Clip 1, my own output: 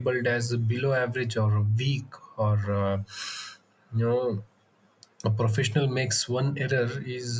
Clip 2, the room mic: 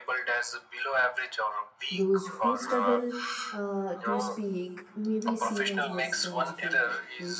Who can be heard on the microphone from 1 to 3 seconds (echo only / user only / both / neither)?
both